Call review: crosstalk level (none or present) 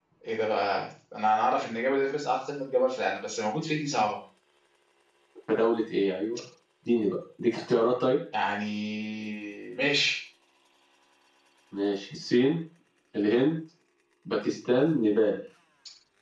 none